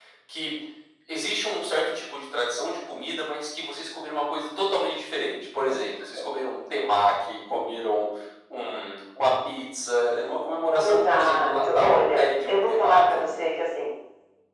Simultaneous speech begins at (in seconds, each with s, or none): 10.8 s